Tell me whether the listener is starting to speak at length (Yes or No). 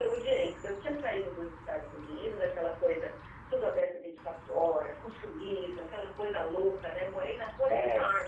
No